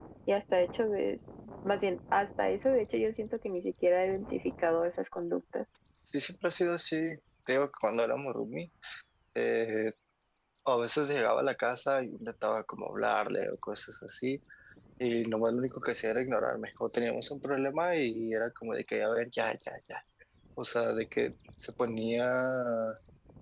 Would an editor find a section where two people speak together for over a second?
No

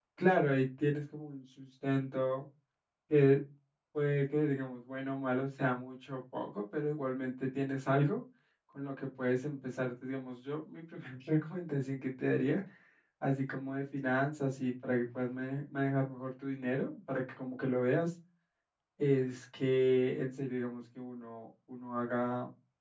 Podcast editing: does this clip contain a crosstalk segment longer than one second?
No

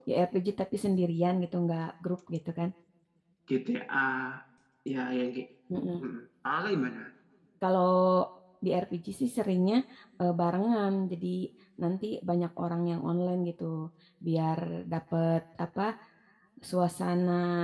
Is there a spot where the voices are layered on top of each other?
No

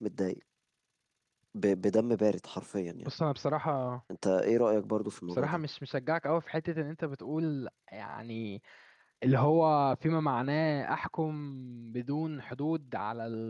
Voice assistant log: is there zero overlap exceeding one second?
Yes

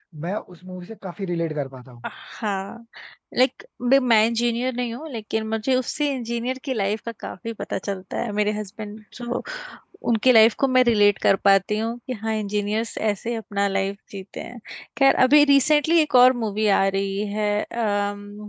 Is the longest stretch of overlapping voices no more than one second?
Yes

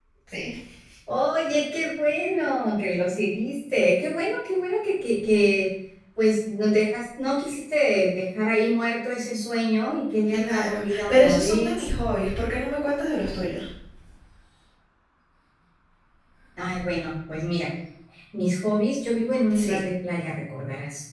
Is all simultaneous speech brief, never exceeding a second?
No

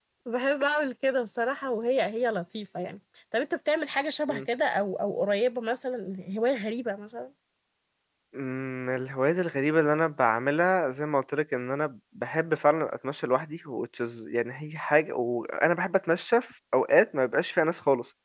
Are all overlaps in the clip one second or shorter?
Yes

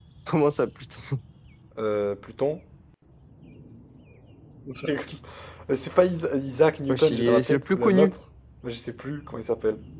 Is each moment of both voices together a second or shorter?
No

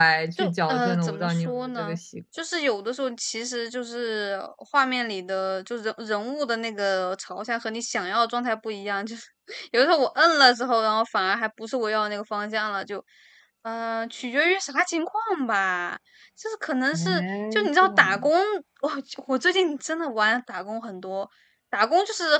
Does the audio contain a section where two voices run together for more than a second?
Yes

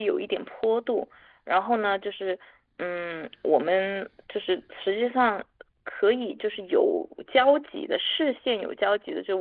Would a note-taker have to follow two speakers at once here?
No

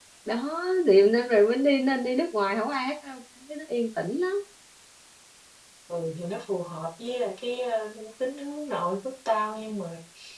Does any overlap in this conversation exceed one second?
No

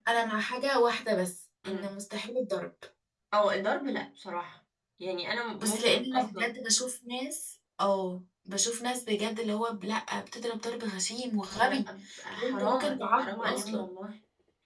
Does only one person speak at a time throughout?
No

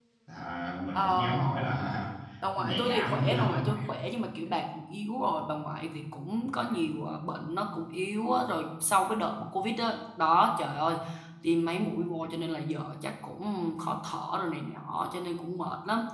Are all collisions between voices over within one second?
No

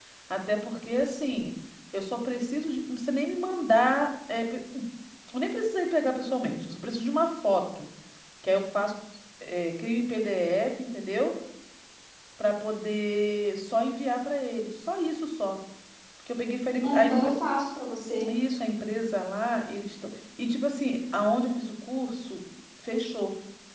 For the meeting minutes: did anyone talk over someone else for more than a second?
No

